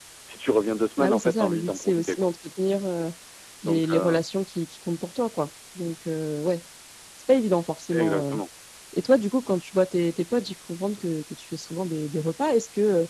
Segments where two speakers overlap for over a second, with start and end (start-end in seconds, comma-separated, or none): 1.0-2.3